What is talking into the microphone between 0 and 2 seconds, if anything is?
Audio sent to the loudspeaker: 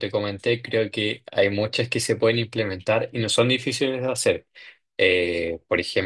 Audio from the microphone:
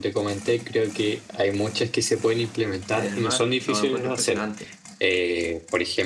echo only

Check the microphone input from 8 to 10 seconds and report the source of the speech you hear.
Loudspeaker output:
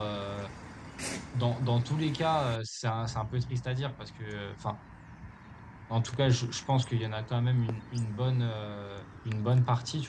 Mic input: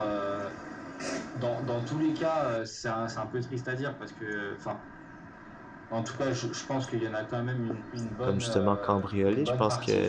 both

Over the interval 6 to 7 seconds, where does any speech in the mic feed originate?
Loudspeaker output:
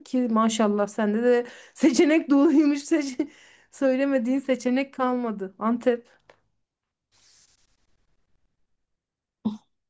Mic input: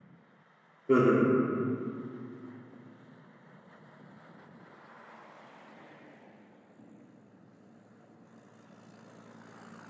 neither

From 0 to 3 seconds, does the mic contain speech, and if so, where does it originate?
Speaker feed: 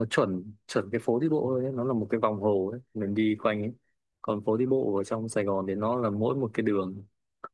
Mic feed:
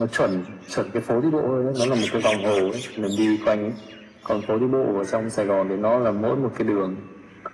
echo only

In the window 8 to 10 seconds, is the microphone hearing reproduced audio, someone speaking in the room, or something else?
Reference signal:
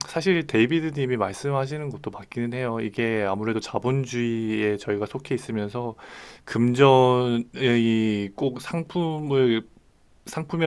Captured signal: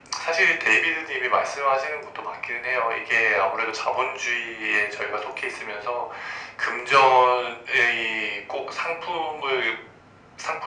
echo only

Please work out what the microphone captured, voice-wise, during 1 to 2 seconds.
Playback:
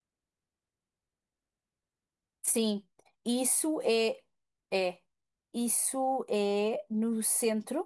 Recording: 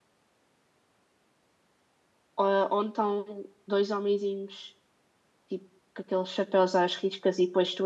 neither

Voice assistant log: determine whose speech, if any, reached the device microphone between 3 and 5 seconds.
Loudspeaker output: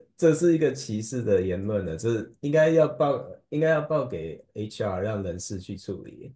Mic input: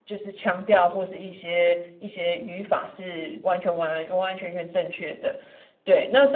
user only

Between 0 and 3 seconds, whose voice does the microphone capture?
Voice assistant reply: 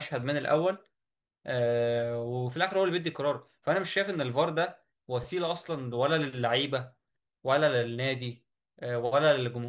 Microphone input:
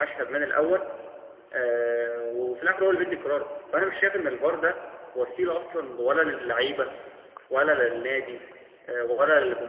echo only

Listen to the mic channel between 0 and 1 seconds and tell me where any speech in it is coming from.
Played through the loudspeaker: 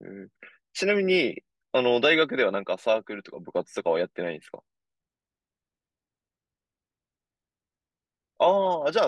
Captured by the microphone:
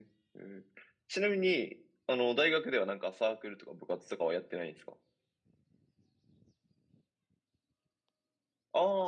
echo only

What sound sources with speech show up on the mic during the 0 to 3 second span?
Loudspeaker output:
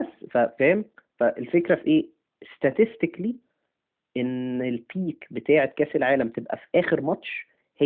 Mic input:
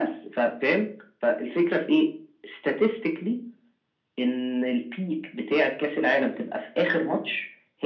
echo only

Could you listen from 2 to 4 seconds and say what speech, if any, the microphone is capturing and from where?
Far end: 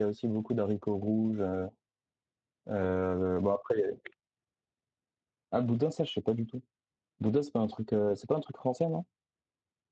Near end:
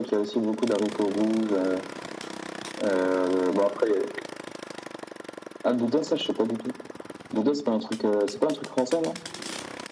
echo only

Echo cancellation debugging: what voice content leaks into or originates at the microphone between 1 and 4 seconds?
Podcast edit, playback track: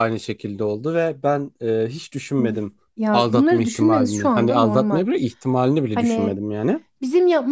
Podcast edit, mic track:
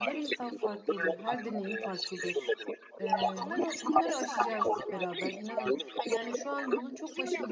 both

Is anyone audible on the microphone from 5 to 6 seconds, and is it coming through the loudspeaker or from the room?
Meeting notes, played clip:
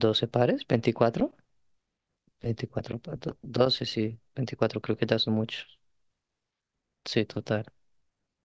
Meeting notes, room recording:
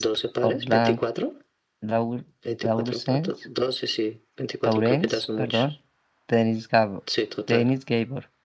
both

